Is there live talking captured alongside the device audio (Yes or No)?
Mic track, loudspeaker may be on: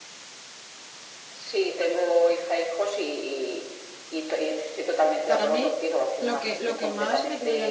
Yes